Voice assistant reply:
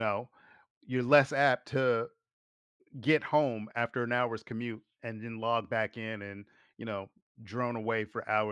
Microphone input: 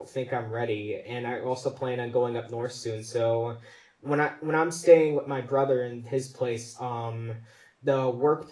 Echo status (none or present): none